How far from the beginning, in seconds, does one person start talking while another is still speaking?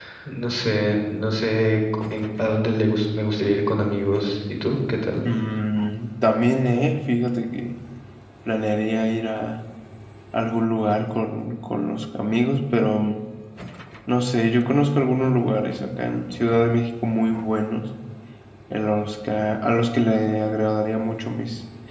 none

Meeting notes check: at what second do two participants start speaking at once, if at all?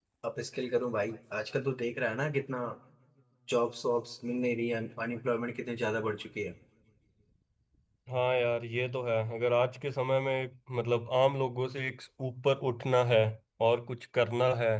none

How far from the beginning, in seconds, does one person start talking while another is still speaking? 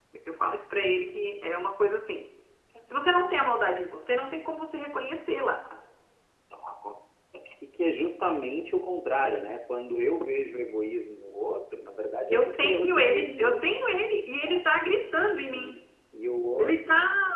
12.3 s

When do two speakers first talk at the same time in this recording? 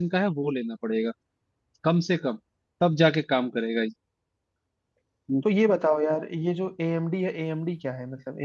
none

